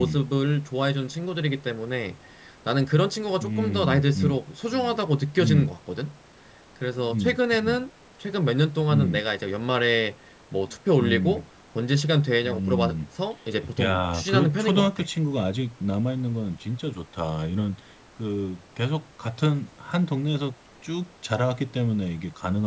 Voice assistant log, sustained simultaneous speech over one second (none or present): present